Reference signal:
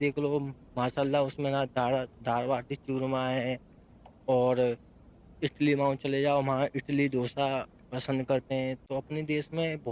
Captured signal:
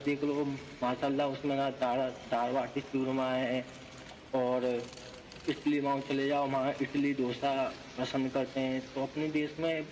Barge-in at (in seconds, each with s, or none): none